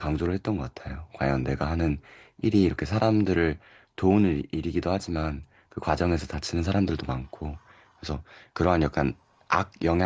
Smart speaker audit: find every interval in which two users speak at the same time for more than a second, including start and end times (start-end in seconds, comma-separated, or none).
none